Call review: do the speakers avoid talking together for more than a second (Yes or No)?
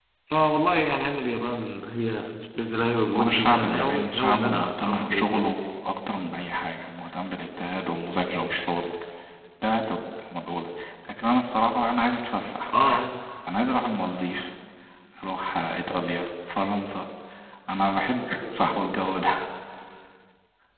No